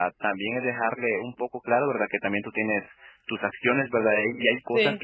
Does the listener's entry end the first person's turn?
No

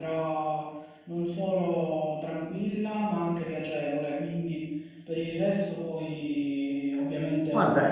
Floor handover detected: Yes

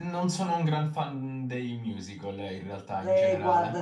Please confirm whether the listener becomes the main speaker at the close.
Yes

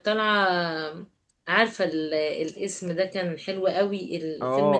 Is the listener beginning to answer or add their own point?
Yes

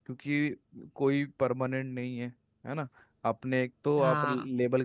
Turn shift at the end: No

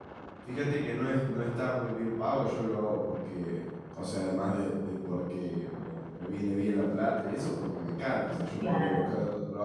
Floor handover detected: No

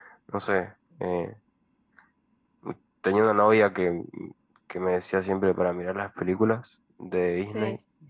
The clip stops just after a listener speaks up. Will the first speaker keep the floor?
Yes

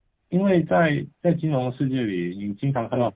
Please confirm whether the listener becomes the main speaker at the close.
No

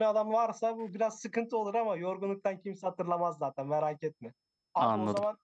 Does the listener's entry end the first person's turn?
No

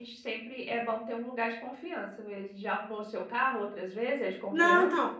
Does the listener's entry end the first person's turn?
Yes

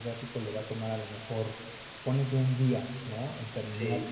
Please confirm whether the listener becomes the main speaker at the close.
No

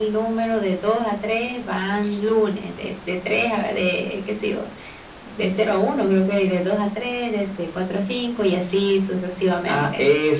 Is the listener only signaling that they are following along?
No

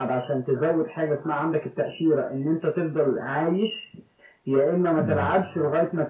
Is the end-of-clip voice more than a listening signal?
No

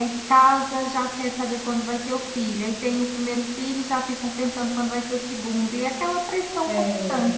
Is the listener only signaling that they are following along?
No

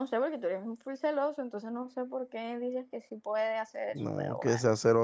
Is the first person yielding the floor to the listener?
Yes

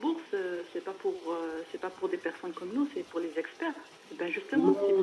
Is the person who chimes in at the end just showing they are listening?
No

